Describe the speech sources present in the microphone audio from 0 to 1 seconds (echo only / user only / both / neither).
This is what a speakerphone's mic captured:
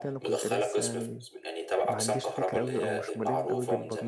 both